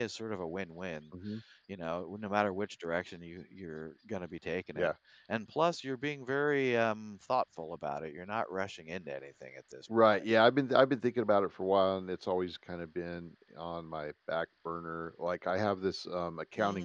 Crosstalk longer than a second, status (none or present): none